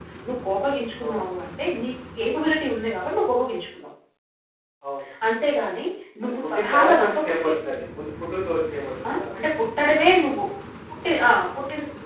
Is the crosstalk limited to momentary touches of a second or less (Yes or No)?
No